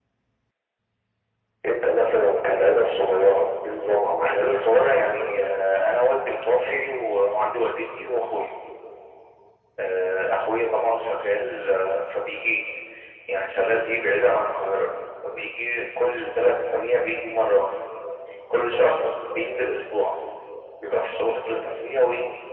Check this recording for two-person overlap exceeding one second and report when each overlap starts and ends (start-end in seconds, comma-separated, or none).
none